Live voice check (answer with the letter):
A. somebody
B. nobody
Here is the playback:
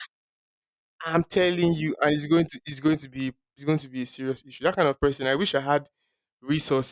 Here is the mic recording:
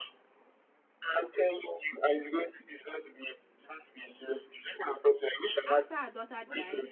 A